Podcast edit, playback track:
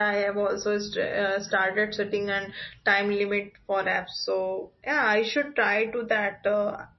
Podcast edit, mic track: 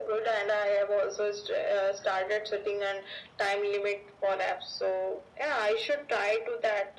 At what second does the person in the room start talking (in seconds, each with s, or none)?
none